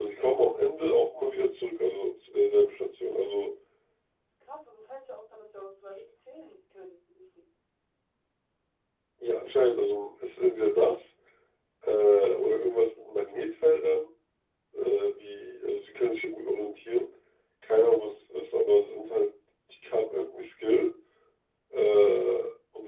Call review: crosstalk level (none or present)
none